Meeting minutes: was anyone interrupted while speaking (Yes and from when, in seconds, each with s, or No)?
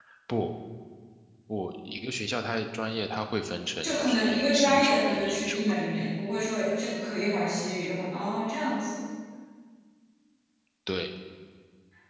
Yes, from 3.8 s